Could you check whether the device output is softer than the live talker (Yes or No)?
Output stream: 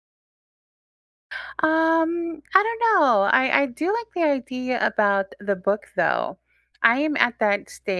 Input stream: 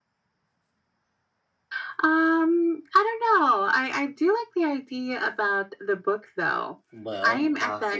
No